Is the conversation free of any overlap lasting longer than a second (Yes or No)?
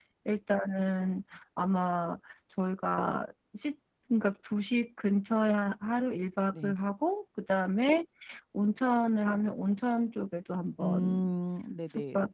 Yes